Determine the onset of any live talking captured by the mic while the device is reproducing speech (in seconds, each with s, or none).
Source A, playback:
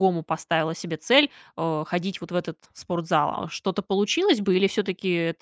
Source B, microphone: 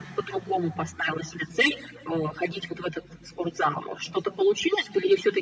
none